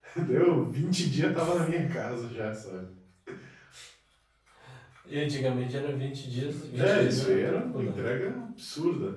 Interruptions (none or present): present